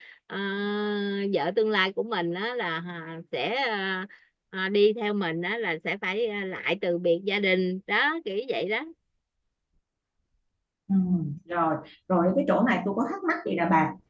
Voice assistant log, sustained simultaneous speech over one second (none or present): none